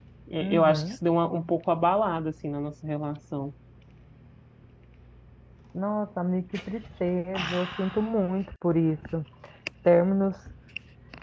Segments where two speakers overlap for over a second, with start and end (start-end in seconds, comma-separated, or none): none